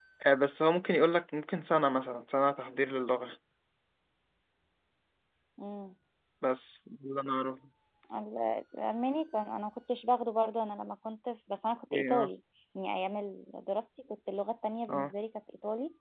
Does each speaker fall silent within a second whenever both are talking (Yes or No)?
Yes